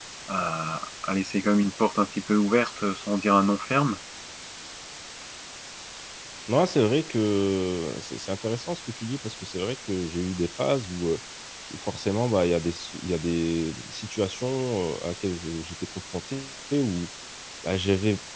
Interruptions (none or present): none